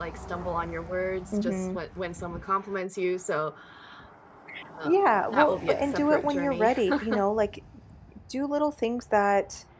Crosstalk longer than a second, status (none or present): present